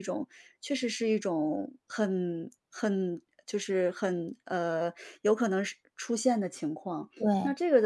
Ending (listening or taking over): listening